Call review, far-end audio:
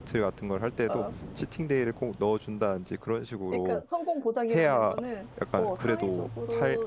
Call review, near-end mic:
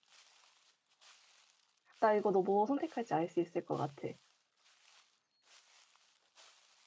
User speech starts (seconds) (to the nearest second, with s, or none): 2 s